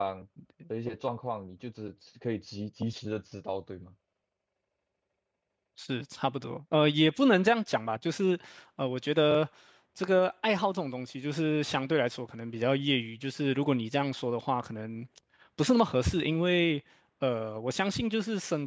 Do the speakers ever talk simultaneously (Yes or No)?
No